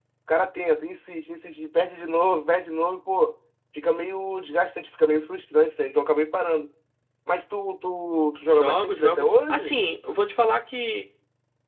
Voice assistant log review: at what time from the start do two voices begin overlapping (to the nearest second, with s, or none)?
8 s